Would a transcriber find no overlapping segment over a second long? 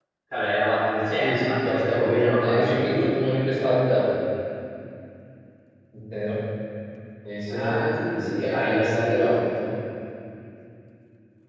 No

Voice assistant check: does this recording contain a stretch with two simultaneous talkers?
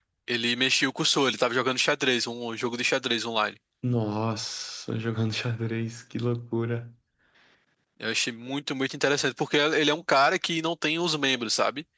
No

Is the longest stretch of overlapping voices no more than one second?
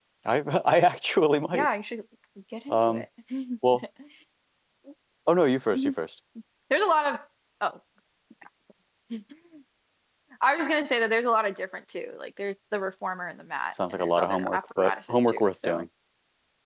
No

